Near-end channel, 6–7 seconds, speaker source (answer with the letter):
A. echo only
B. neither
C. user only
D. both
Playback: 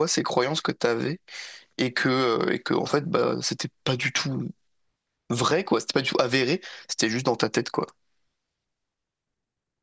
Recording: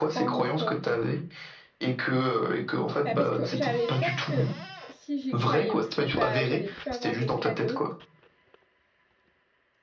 D